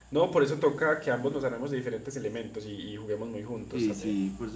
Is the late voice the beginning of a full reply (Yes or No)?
Yes